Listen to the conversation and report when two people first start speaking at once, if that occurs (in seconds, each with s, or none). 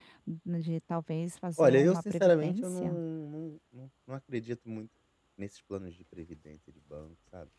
1.6 s